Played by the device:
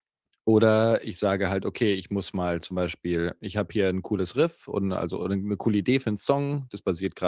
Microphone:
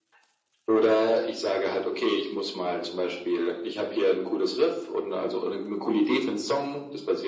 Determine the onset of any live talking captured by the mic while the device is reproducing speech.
none

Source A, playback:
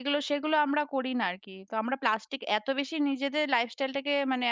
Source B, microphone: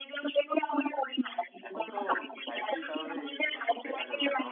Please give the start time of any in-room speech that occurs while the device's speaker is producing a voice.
2 s

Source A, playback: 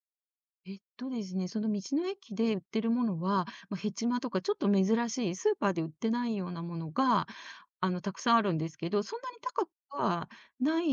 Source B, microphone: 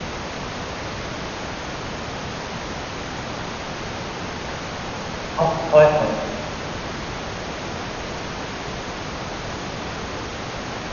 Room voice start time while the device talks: 5 s

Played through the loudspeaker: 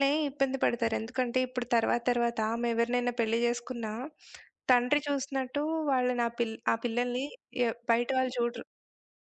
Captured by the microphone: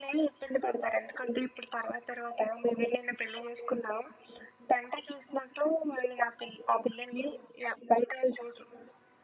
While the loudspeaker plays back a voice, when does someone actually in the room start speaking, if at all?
none

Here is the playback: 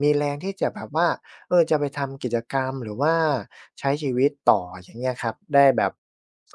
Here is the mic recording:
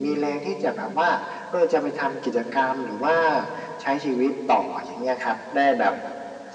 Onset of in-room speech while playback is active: none

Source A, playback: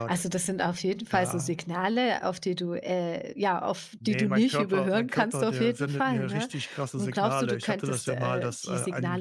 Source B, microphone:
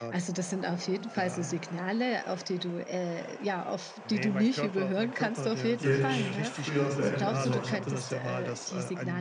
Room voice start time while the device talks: 6 s

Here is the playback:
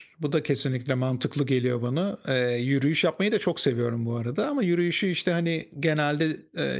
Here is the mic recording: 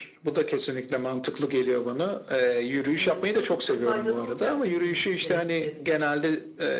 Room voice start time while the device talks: 3 s

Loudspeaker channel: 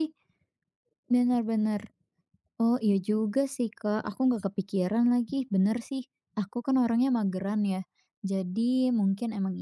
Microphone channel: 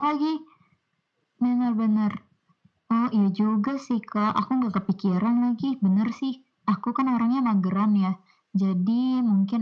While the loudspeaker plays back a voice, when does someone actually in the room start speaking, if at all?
none

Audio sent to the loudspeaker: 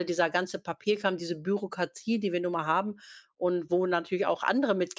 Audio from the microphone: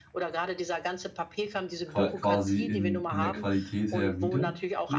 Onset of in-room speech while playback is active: 2 s

